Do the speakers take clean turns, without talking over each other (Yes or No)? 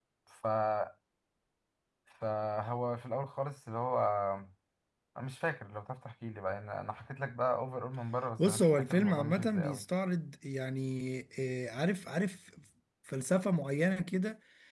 No